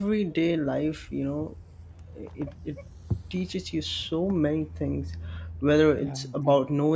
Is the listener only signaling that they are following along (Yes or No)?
Yes